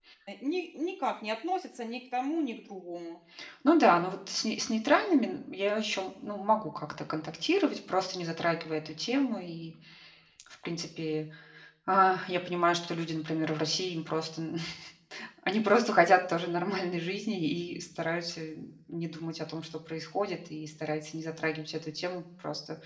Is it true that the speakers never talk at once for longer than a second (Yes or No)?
Yes